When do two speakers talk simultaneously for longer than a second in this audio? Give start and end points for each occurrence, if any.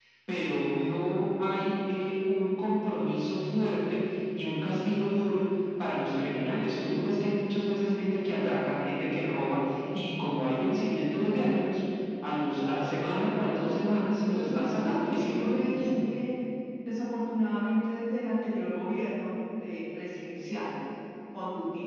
14.3-15.9

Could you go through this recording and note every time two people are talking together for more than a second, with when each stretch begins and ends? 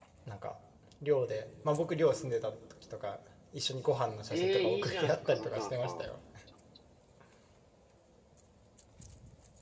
4.3-6.0

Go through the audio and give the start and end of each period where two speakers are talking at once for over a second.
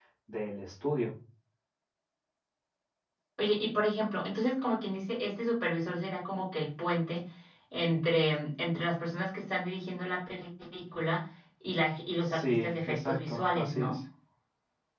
12.2-14.0

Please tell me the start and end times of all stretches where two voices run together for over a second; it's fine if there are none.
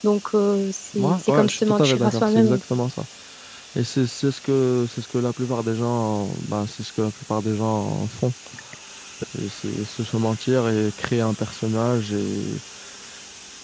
1.0-2.6

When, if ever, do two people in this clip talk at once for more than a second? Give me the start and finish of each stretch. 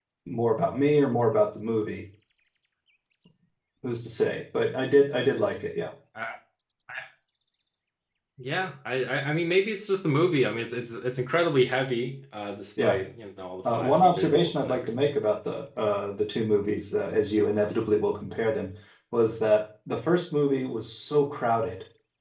13.7-15.1

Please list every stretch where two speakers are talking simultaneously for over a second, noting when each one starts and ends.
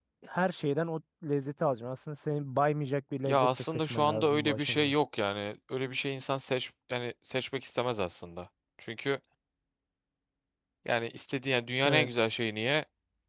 3.2-4.9

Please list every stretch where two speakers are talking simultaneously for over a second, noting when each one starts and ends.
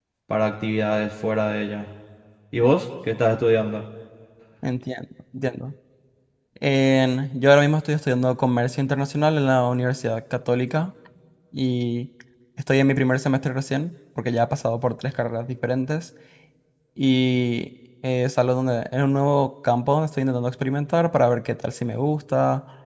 none

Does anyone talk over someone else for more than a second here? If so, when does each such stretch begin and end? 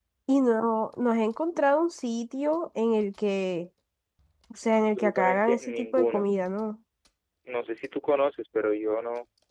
4.8-6.2

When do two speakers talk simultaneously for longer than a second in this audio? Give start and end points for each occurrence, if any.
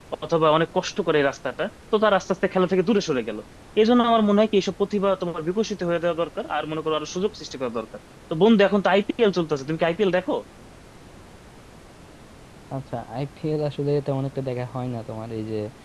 none

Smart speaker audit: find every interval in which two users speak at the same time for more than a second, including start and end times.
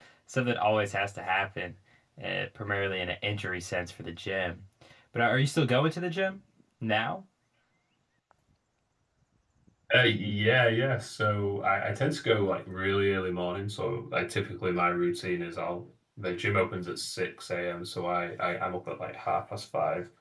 none

